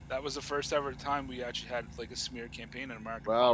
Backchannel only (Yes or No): No